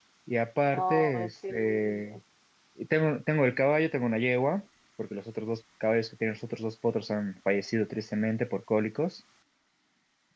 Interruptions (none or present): present